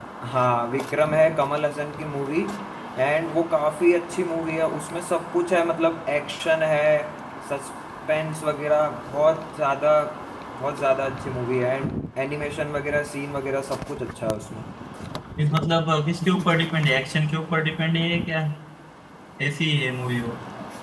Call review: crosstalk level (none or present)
none